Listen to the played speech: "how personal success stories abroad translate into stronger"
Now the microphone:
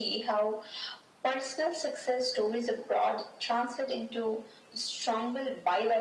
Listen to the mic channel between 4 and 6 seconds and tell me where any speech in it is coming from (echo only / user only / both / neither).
echo only